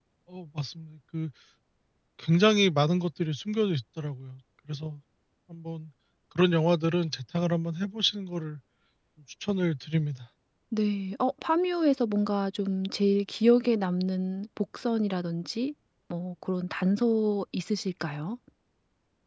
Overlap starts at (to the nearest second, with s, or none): none